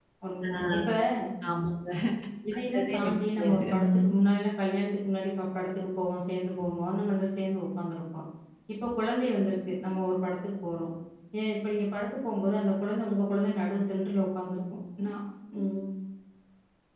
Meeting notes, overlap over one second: present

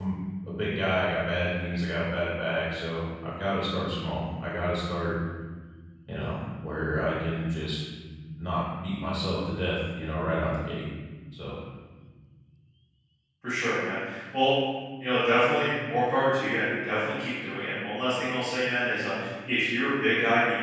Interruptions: none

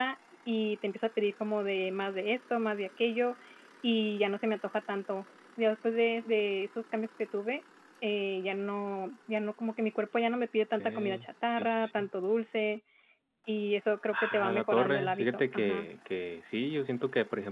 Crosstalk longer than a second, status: present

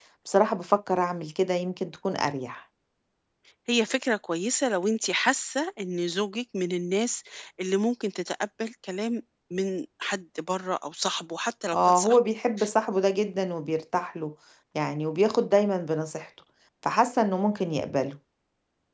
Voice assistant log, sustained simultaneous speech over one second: none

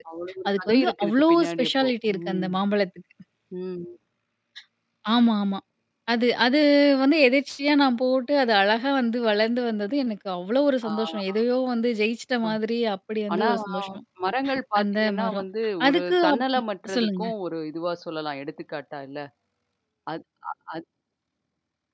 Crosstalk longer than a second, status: present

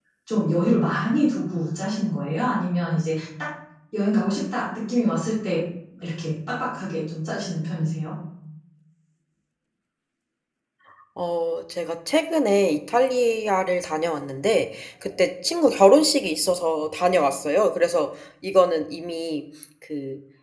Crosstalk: none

